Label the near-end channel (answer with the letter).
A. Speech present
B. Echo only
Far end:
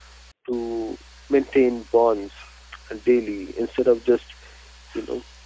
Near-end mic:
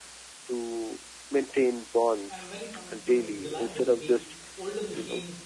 A